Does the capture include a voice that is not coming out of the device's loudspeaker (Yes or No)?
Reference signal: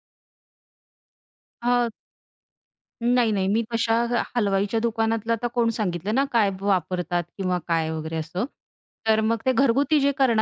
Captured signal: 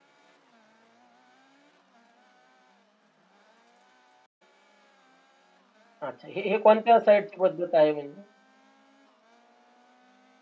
Yes